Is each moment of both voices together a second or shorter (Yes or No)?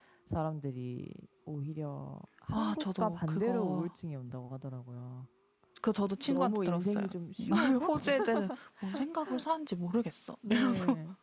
No